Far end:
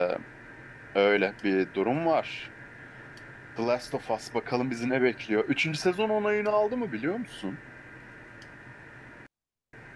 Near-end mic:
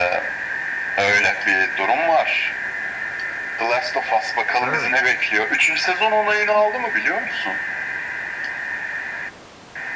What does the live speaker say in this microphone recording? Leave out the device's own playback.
Ha.

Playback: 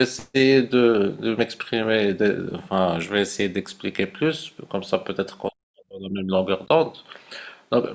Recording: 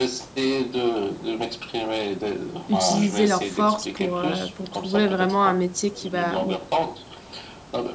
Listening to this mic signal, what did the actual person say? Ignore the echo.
utiliser leurs forces pour, euh, pour trouver vraiment un métier qui va,

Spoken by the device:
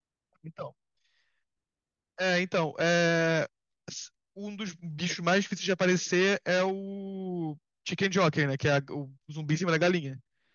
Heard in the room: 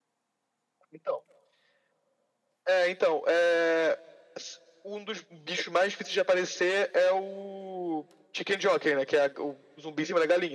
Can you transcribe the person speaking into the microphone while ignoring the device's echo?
none

